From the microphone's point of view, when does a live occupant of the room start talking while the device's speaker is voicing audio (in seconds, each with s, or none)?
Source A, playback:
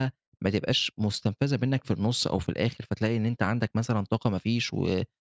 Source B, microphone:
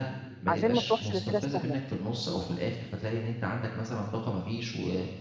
0.5 s